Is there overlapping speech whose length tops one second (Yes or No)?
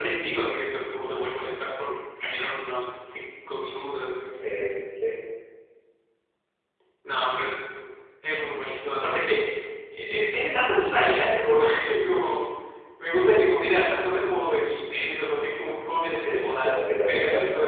Yes